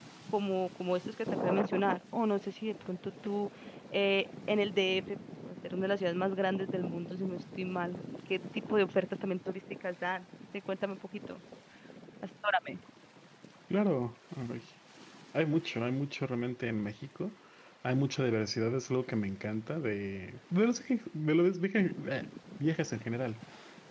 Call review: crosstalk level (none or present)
none